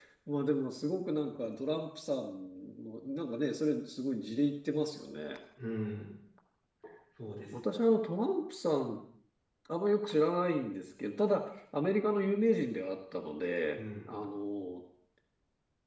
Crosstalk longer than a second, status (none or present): none